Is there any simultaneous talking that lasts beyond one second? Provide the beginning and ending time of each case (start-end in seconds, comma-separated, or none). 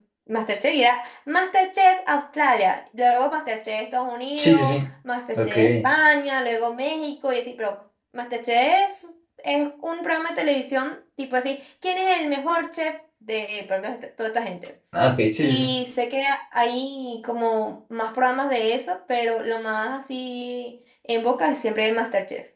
none